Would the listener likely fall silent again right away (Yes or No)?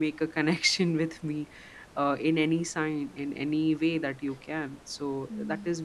Yes